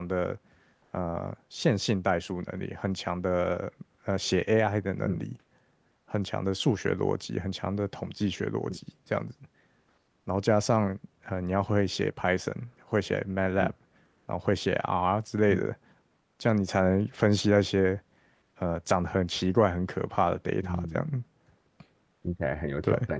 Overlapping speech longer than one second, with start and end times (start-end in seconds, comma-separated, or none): none